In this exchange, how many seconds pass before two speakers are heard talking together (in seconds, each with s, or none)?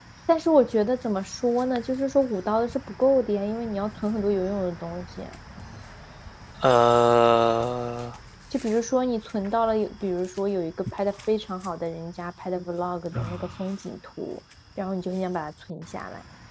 none